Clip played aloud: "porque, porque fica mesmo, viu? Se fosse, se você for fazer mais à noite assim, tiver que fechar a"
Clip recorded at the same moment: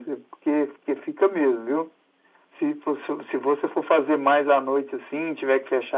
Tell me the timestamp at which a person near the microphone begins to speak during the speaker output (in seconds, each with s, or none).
none